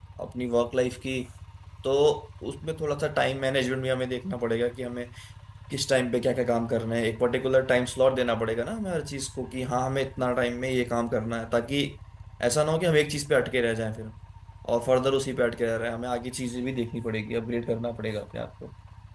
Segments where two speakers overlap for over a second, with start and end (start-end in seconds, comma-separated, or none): none